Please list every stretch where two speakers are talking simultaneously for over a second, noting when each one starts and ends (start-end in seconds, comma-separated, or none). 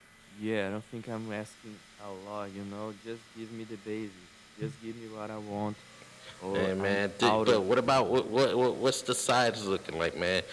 6.5-7.8